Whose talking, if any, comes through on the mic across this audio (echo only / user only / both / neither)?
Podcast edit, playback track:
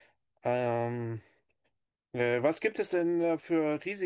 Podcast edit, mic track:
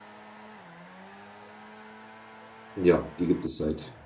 user only